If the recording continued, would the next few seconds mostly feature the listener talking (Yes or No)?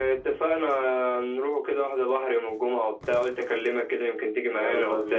Yes